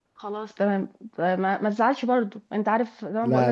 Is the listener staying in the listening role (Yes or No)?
Yes